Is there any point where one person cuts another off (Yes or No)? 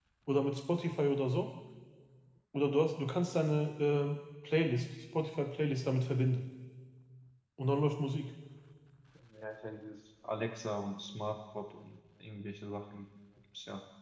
No